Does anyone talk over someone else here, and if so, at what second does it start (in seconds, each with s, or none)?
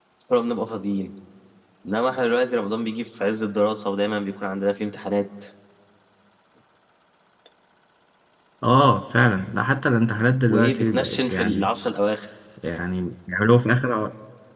10.5 s